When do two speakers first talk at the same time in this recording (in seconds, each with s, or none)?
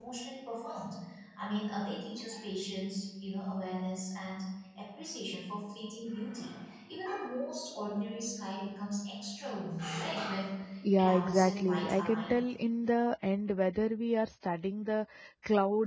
11.0 s